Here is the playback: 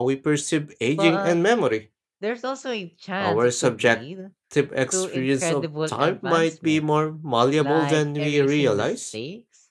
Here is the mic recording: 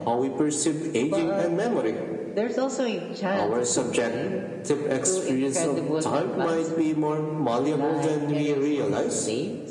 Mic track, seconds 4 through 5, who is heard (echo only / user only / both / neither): echo only